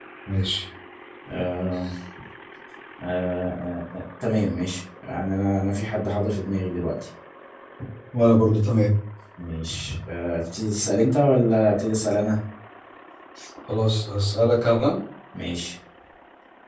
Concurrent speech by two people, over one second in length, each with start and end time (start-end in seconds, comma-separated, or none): none